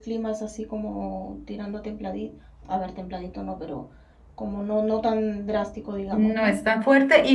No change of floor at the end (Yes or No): No